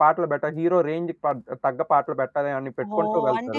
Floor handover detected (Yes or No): Yes